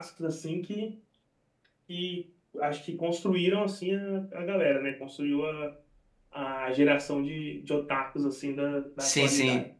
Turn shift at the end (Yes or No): Yes